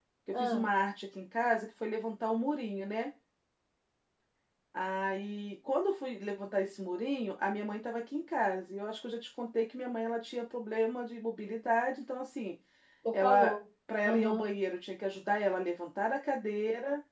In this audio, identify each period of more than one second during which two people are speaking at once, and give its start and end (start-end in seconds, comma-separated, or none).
none